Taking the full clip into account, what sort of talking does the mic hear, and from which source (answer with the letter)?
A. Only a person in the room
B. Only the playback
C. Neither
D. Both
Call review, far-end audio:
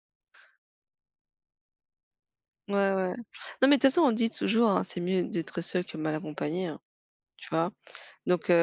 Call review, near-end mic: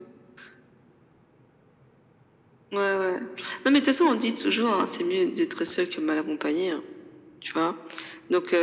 B